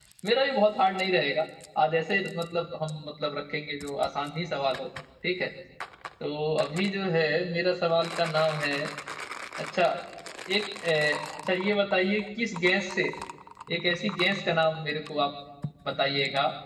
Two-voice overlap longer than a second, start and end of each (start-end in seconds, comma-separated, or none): none